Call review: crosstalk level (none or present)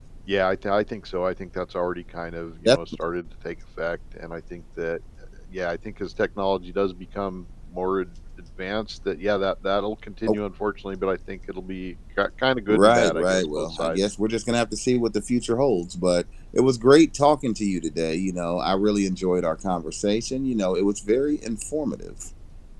present